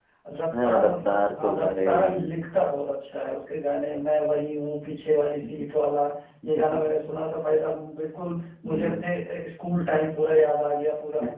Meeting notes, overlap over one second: present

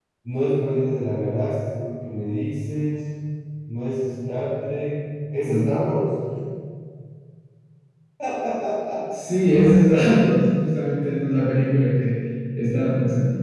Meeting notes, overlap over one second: none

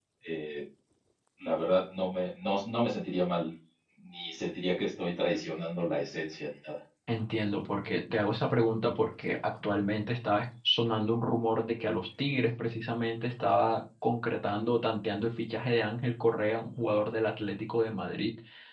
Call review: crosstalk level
none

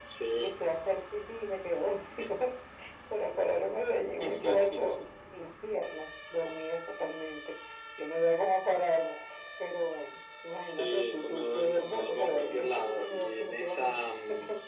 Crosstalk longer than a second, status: present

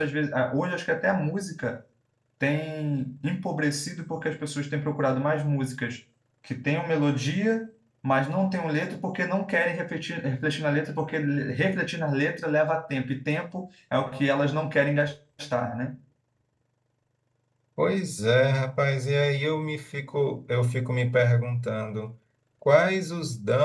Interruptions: none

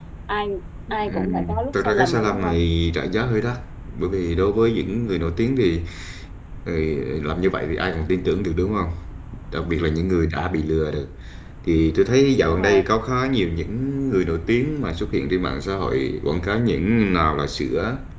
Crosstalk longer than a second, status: present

